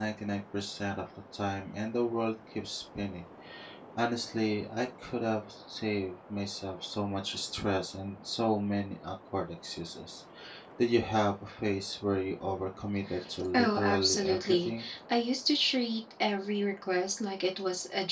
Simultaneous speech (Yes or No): Yes